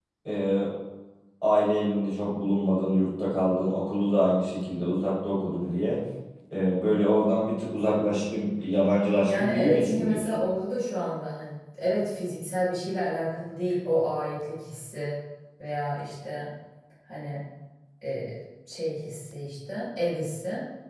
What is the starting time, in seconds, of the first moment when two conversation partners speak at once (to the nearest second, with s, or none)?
9 s